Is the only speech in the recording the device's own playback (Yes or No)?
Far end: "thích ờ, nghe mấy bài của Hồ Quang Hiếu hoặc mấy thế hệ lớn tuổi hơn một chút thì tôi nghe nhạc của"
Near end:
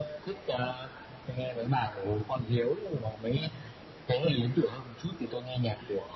Yes